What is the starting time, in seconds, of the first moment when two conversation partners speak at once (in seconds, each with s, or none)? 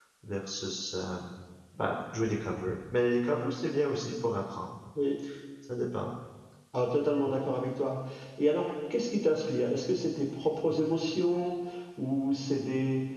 none